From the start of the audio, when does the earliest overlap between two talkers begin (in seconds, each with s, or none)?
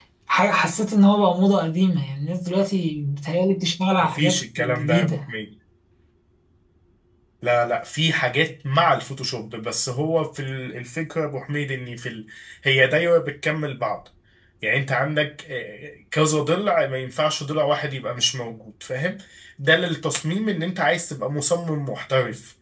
4.0 s